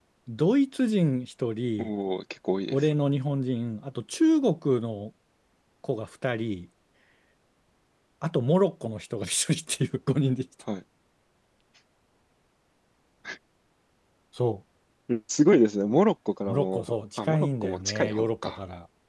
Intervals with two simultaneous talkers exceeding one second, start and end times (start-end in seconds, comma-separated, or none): 16.5-18.6